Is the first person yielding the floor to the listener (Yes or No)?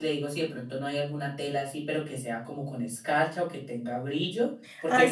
Yes